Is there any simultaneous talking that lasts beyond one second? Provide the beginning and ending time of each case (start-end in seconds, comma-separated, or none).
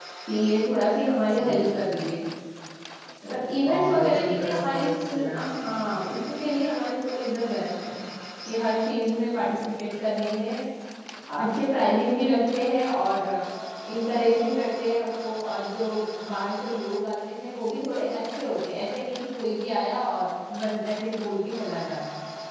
3.7-5.5